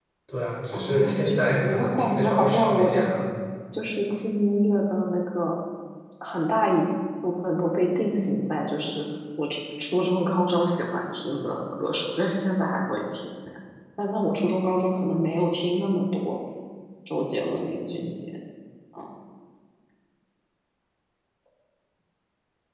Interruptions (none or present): present